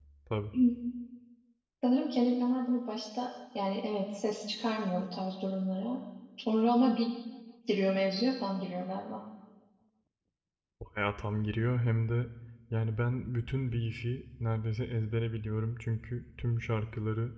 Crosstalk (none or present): none